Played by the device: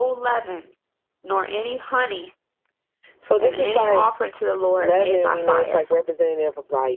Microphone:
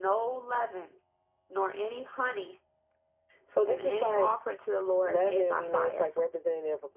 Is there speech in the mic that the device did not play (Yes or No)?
No